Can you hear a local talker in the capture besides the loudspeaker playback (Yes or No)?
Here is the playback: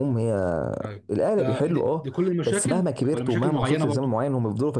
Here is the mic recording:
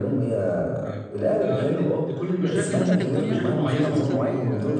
Yes